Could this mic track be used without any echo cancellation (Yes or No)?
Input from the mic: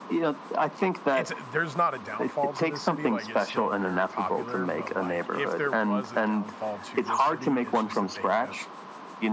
No